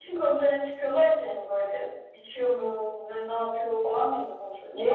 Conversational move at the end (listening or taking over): taking over